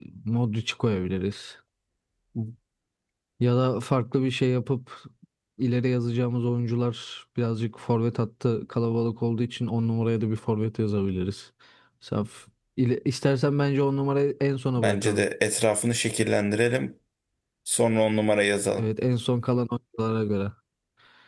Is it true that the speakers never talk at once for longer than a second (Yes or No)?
Yes